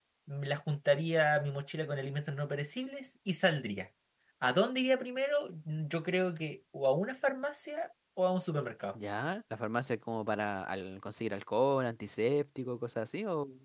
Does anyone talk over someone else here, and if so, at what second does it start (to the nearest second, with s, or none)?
none